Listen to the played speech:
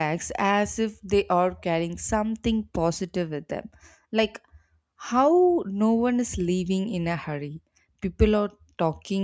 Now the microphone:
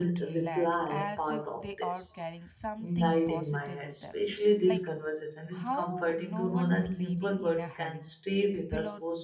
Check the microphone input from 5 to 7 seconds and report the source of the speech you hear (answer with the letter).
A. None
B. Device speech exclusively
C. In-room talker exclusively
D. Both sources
D